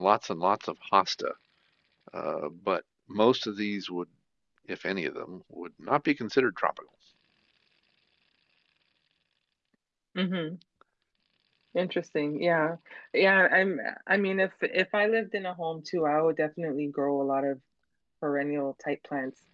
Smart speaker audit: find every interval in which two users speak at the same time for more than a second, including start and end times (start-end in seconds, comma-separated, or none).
none